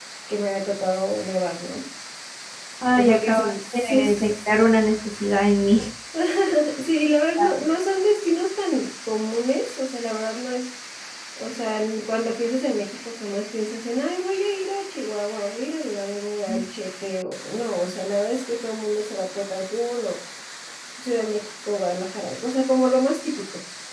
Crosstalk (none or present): present